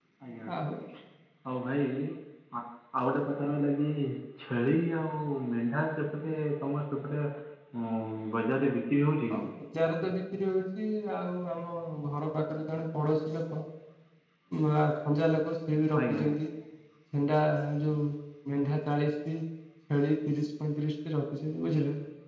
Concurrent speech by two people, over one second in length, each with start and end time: none

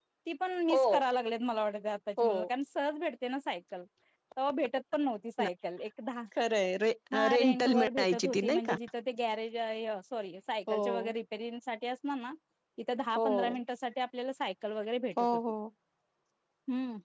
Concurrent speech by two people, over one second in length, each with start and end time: 7.3-8.7

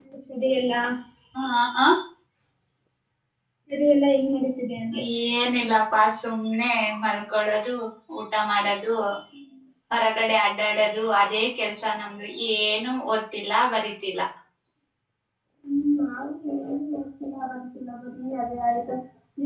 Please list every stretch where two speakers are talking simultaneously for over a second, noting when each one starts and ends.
none

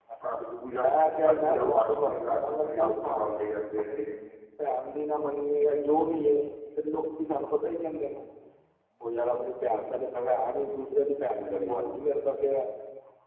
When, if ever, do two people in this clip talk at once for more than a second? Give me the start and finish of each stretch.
1.2-3.2

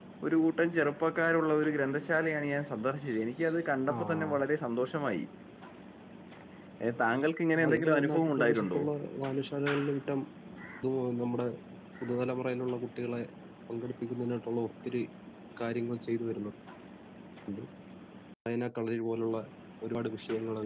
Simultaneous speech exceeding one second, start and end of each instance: 7.6-8.8

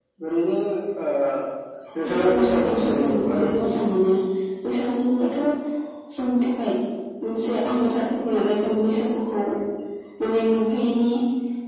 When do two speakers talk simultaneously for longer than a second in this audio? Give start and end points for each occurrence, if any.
2.0-3.8

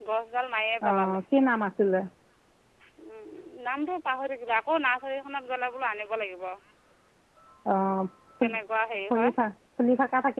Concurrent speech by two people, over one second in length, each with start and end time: none

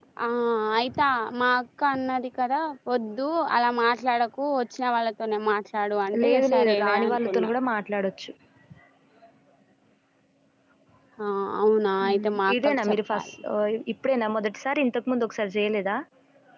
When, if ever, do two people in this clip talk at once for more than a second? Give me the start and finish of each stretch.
6.2-7.5, 12.1-13.3

